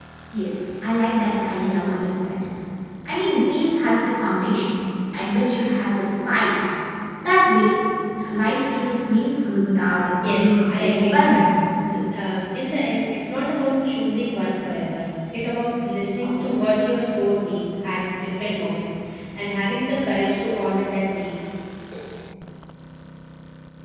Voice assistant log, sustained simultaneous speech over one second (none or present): present